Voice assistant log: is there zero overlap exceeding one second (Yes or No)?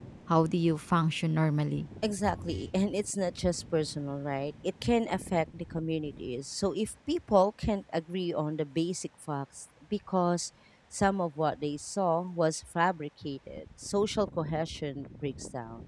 Yes